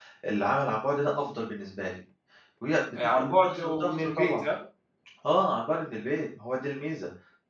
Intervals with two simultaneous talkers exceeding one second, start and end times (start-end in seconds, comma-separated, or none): 3.2-4.4